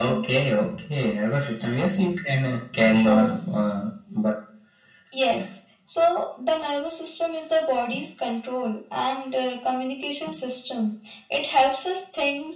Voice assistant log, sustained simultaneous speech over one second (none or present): none